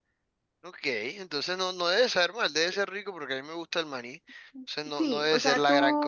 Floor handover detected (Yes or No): Yes